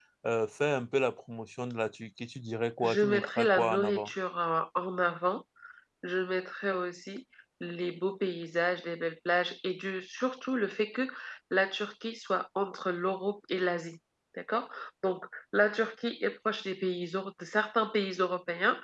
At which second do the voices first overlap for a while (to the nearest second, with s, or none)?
3 s